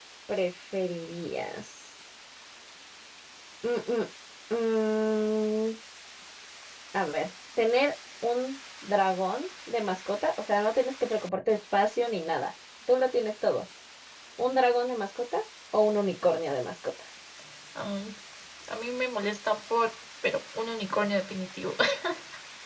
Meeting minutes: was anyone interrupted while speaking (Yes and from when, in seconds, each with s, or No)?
No